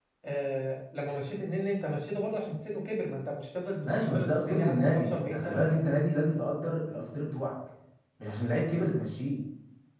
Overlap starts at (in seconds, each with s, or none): 3.8 s